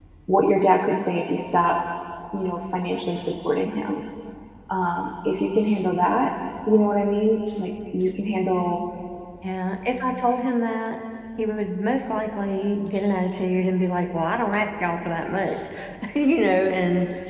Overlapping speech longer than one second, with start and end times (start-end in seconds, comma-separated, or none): none